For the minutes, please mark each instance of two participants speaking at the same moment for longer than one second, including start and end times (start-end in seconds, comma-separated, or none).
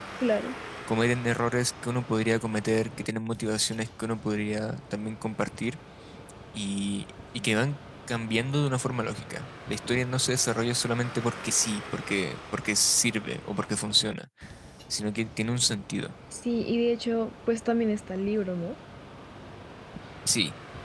none